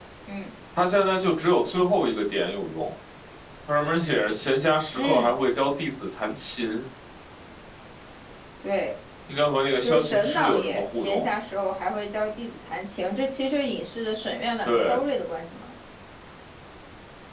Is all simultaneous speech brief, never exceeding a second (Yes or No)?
No